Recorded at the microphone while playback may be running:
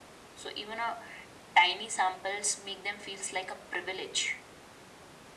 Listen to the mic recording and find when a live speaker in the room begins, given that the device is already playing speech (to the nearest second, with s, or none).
none